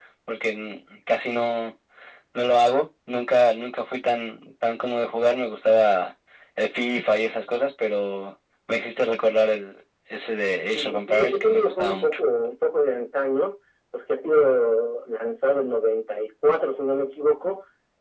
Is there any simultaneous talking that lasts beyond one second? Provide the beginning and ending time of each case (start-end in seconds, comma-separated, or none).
10.7-12.2